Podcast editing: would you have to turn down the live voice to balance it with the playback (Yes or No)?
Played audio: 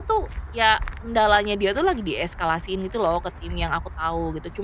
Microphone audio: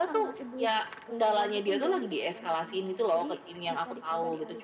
No